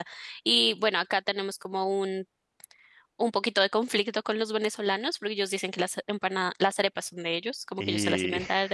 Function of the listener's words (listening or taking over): listening